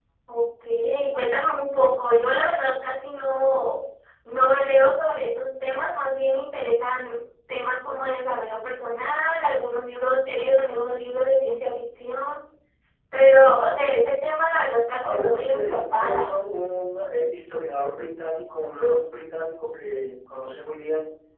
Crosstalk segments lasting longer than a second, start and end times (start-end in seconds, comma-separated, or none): 15.0-16.4